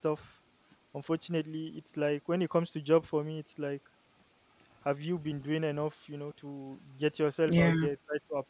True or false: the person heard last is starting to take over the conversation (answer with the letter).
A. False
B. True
A